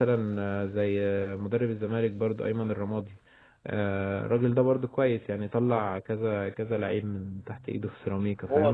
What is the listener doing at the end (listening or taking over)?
taking over